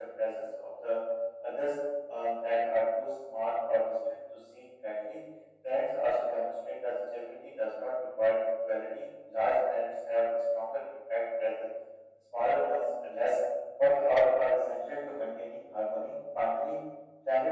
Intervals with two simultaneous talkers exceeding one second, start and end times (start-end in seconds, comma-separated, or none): none